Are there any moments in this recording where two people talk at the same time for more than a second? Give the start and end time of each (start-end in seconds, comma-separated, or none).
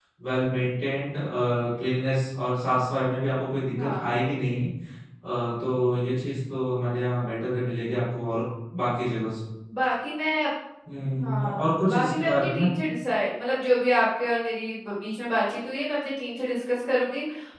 11.2-12.7